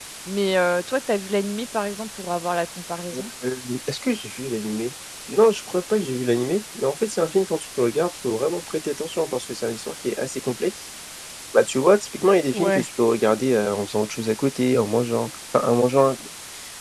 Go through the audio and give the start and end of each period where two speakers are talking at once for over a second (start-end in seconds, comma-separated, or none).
none